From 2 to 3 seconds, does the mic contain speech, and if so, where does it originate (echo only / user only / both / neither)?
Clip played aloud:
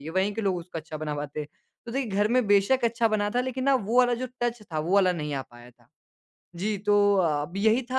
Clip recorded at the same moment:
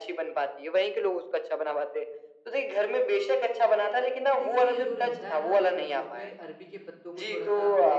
echo only